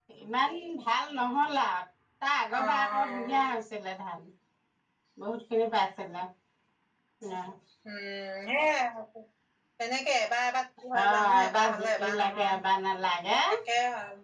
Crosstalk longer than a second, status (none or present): present